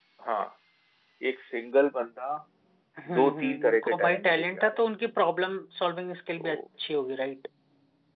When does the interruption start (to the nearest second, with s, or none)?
3 s